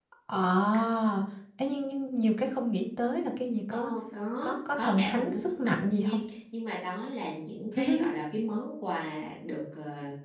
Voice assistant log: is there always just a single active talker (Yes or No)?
No